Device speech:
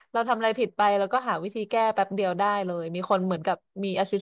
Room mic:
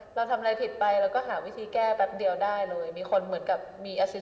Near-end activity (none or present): none